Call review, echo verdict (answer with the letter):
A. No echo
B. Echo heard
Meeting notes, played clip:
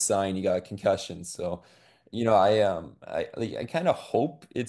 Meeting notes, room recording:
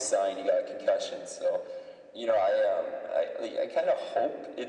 B